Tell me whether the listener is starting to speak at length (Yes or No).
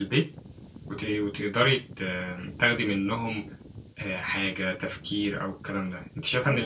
No